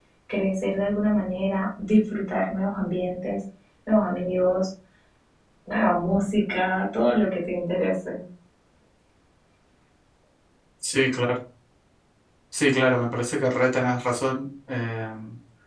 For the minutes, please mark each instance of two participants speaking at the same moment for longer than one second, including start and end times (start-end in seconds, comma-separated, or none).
none